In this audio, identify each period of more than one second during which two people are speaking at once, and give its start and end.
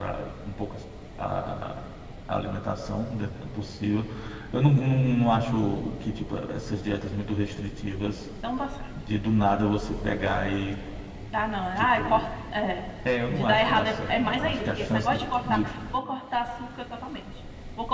13.3-15.2

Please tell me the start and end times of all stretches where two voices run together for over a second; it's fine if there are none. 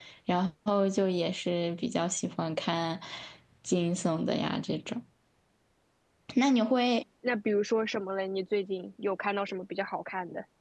none

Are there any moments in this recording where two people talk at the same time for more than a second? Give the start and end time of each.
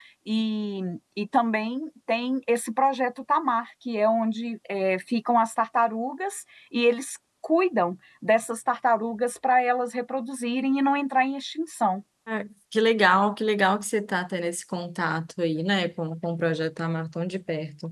none

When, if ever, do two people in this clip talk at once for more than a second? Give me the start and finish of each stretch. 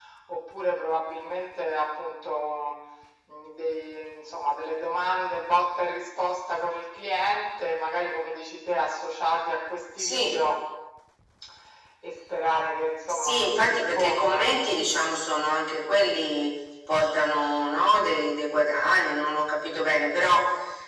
13.1-14.6

